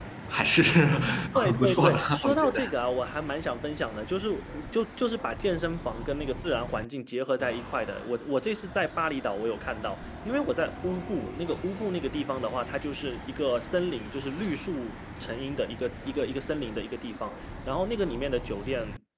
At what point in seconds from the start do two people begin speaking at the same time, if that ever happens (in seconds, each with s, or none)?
1.4 s